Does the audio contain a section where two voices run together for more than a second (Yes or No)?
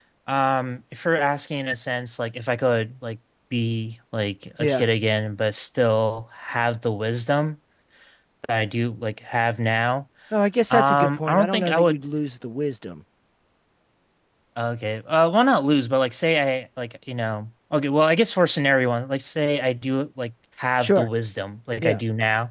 Yes